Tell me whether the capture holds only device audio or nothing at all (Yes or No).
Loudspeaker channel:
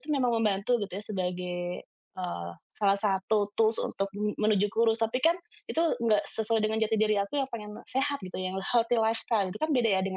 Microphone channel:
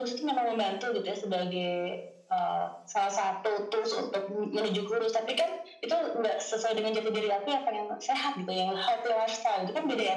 Yes